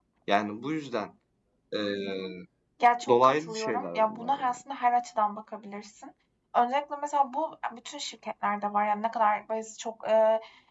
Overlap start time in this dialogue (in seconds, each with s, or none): 3.1 s